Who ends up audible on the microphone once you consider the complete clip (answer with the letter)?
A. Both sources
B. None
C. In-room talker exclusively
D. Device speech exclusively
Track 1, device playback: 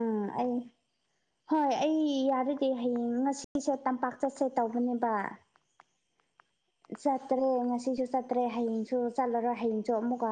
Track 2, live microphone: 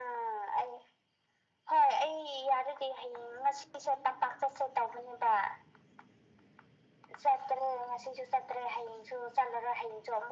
D